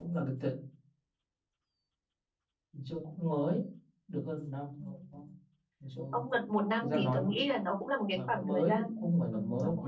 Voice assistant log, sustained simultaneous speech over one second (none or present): present